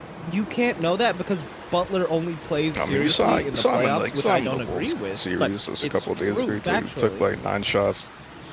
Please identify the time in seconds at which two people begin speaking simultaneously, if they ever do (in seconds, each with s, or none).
2.7 s